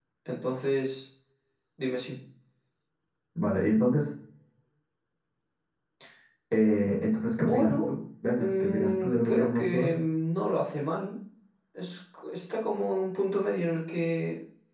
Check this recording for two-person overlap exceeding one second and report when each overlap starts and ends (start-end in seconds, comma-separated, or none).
8.4-9.9